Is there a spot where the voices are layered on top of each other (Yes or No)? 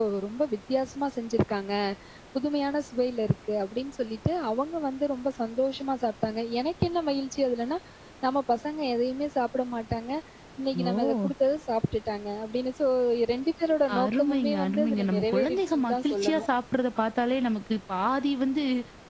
Yes